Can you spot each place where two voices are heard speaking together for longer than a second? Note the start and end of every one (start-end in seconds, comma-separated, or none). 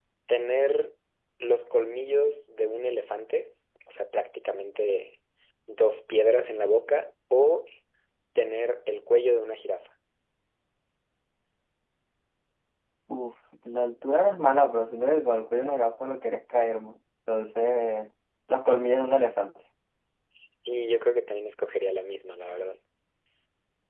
none